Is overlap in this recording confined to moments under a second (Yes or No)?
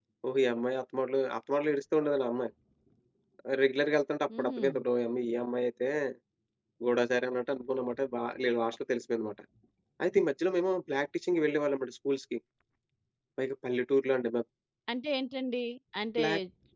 Yes